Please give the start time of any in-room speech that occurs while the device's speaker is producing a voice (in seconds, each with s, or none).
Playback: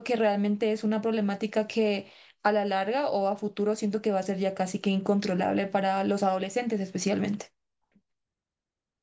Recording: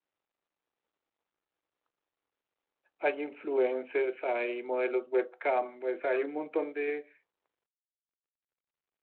3.0 s